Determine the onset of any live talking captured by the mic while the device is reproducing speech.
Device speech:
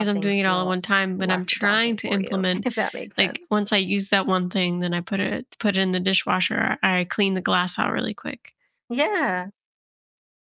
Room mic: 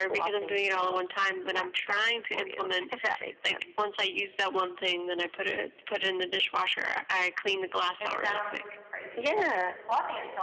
8 s

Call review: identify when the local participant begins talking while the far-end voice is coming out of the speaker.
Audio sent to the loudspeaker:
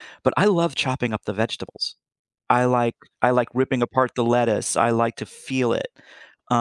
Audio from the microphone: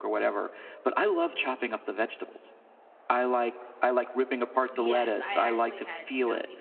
5 s

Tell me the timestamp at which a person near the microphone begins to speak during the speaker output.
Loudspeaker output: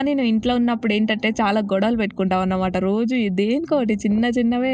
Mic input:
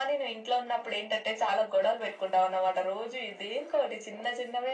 none

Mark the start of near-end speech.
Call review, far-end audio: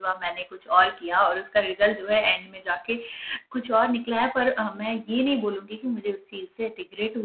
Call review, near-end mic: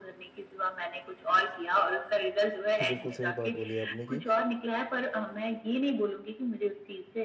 3 s

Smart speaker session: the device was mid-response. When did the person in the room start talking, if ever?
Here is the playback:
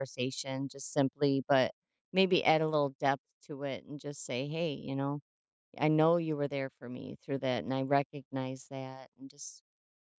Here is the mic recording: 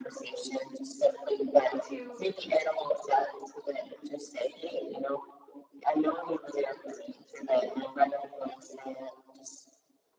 2 s

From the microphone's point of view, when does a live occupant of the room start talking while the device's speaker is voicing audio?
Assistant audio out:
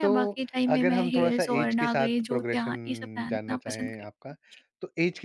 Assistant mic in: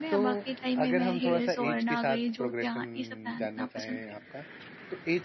none

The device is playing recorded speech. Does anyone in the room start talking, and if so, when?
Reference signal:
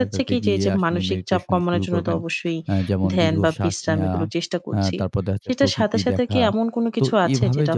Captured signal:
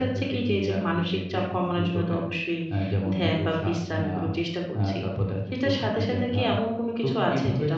none

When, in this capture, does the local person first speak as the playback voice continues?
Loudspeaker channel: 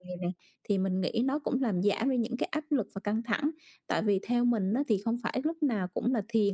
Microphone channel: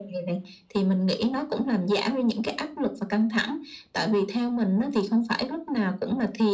none

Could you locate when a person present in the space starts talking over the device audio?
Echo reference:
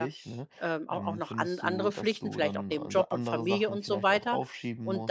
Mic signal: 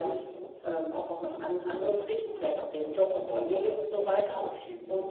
none

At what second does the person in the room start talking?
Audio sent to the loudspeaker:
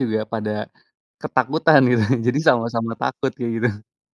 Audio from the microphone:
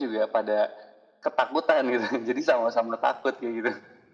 none

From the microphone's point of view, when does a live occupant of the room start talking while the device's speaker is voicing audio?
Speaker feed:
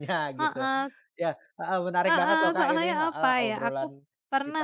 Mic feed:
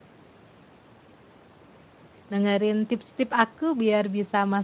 2 s

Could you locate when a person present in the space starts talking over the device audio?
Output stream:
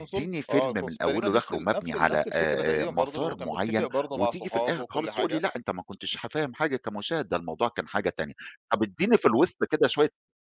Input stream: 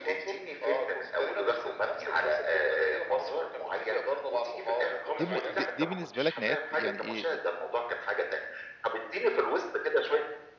5 s

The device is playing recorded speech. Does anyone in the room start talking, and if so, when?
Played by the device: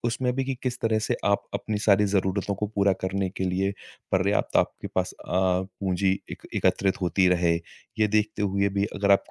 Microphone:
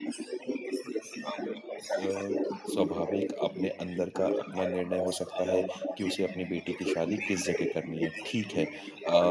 2 s

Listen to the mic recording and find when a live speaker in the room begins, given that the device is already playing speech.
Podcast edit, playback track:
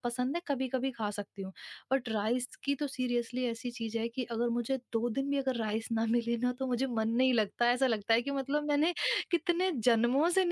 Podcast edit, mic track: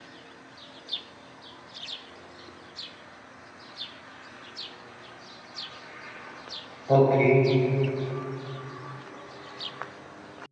7 s

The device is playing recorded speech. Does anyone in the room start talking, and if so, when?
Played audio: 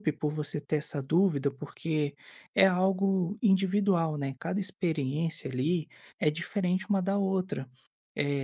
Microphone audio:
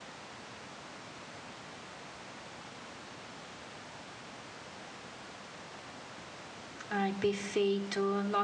7 s

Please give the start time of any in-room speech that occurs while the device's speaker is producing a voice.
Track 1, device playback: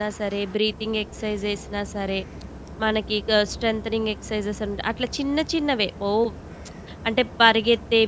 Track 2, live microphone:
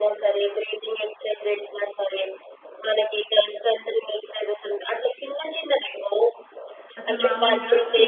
7 s

